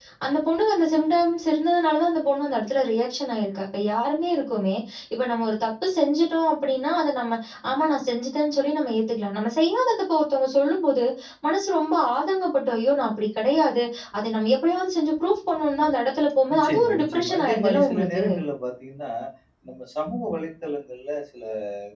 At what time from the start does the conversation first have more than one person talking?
16 s

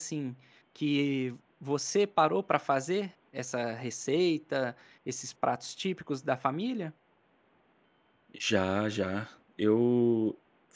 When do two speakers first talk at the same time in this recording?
none

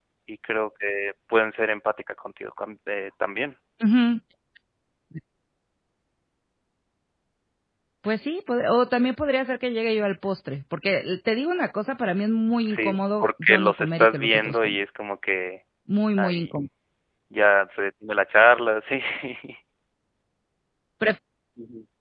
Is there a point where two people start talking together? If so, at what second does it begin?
13 s

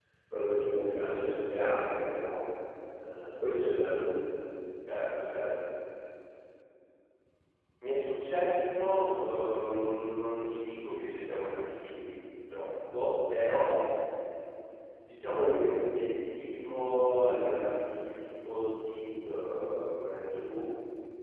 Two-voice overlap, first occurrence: none

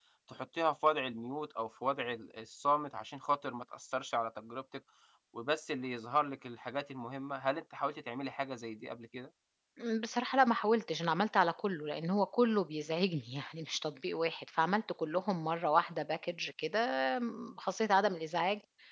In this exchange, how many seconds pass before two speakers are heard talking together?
none

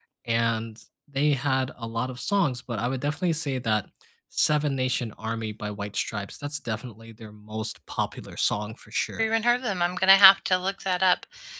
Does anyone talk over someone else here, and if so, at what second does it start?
none

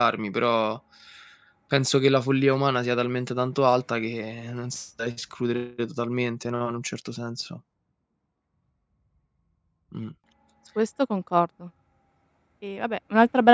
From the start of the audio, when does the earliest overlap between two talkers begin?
none

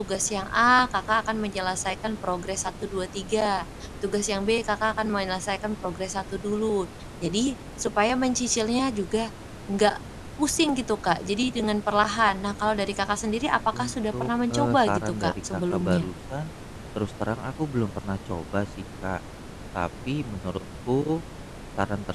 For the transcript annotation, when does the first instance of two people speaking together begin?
14 s

